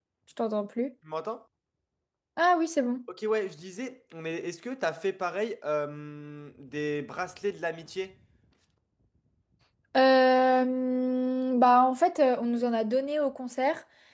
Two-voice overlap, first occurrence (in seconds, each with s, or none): none